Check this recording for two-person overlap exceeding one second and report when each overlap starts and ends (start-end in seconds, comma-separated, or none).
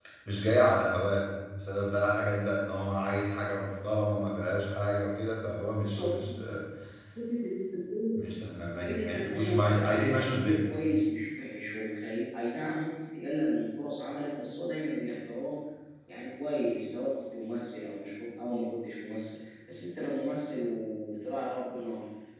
8.8-10.6